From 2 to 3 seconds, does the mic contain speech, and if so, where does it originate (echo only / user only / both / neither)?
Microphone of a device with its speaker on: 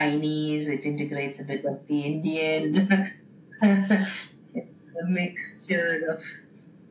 echo only